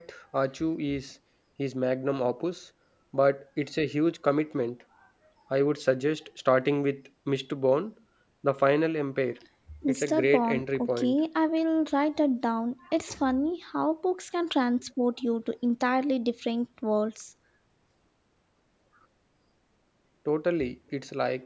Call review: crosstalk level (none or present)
present